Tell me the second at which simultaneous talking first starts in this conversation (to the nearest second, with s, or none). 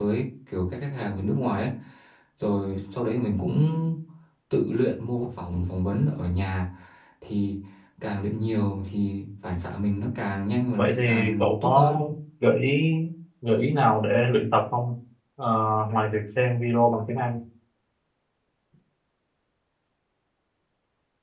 11 s